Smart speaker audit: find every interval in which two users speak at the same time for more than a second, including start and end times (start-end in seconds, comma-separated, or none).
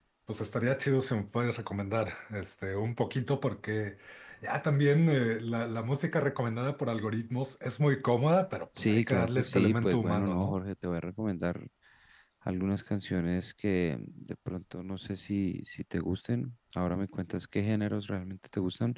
8.8-10.6